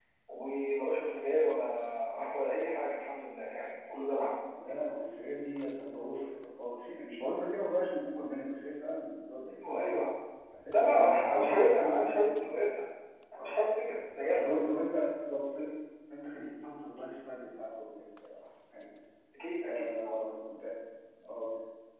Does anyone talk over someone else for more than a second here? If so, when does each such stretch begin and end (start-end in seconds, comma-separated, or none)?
10.7-12.7